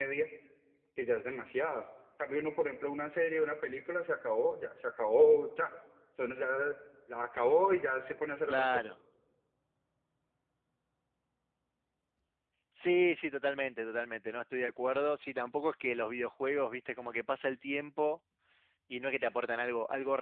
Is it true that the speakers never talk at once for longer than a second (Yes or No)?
Yes